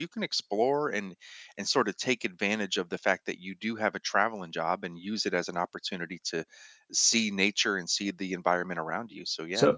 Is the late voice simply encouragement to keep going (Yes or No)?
No